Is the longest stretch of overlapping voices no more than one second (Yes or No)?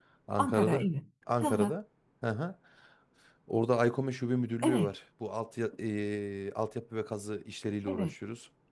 Yes